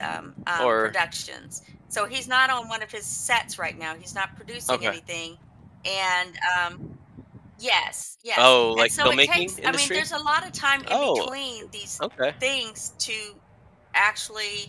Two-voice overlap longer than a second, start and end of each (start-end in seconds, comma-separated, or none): 8.4-10.0